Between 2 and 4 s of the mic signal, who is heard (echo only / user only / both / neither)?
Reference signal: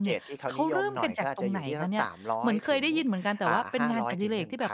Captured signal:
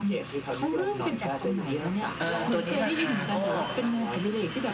both